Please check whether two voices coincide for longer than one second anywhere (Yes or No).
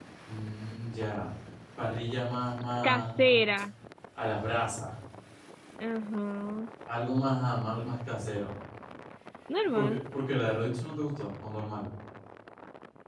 No